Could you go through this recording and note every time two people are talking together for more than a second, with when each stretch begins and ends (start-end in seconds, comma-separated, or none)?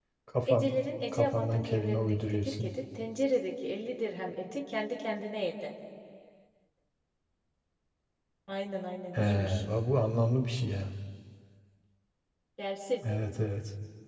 1.1-2.7